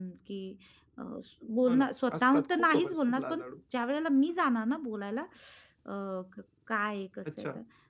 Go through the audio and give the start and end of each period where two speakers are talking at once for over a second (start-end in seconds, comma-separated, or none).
1.7-3.4